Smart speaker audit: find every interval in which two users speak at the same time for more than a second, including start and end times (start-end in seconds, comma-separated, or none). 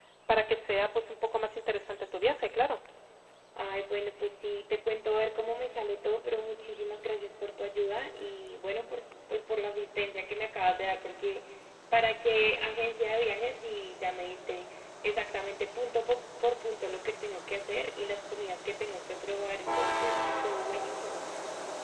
none